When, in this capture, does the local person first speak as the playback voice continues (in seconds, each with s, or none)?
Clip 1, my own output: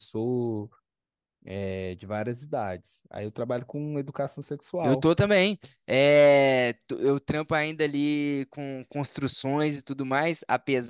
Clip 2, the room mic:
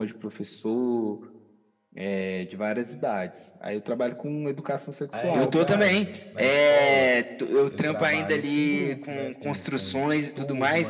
5.1 s